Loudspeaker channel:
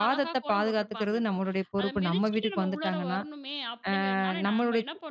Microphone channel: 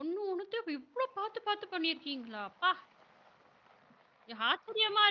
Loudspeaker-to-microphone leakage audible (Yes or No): No